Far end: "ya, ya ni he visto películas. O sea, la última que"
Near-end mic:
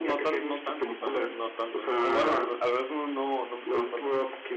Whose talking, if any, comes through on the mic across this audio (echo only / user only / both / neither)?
both